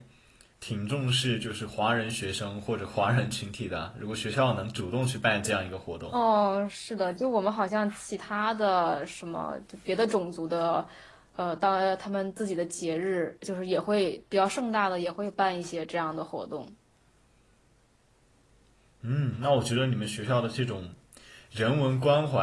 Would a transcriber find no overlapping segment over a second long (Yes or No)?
Yes